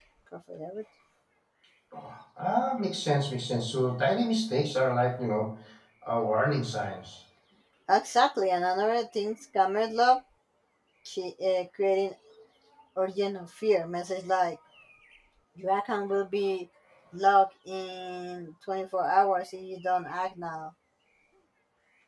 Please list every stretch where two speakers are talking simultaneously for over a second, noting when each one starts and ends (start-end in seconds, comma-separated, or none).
none